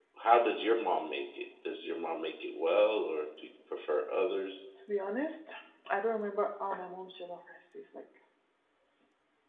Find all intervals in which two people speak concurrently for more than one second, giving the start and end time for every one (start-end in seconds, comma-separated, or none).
none